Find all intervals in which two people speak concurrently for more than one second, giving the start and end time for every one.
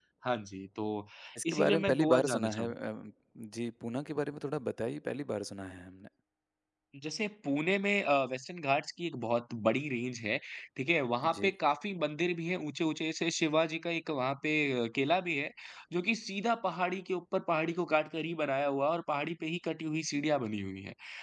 1.4-2.7

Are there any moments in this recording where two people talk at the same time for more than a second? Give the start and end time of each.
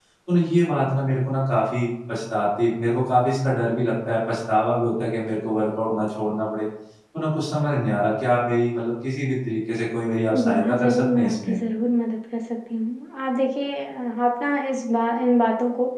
10.4-11.6

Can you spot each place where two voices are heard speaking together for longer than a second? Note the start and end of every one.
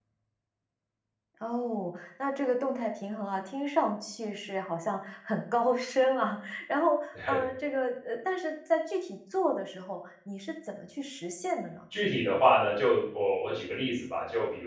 none

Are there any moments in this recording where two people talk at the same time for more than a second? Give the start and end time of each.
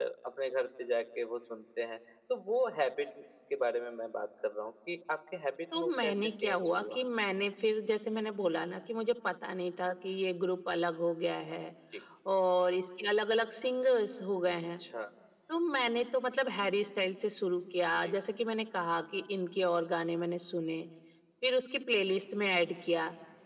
5.7-7.0

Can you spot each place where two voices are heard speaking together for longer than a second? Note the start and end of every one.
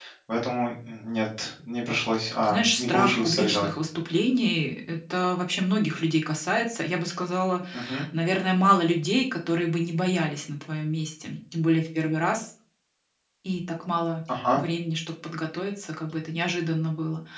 2.4-3.7

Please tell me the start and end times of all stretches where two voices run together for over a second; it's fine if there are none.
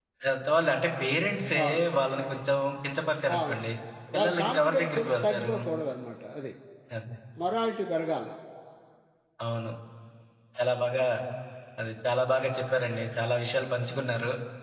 4.2-5.5

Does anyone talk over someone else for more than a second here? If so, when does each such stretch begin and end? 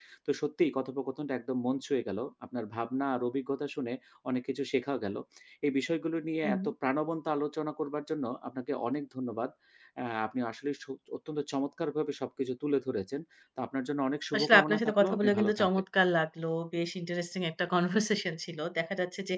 14.3-15.7

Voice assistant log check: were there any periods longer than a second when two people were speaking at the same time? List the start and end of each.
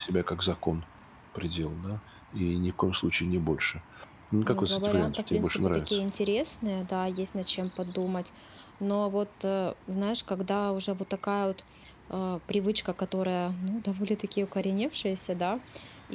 4.5-6.0

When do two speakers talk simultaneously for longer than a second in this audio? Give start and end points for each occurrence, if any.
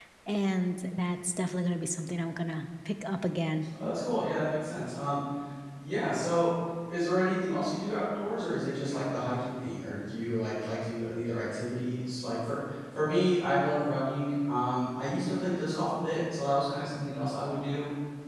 none

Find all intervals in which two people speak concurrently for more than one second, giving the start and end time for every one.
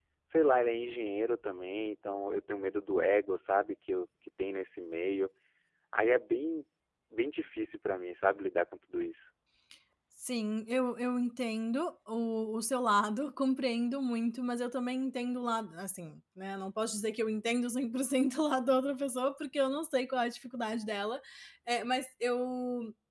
none

